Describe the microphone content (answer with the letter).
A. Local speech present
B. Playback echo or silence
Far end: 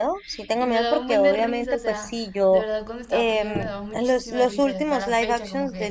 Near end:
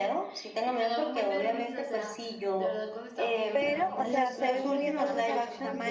A